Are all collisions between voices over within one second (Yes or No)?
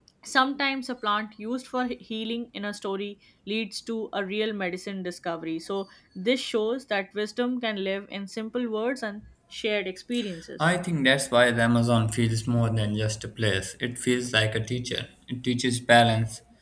Yes